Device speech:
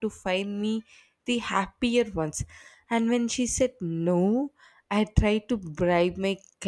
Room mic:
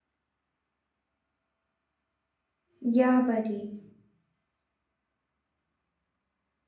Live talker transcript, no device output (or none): Yeah, buddy.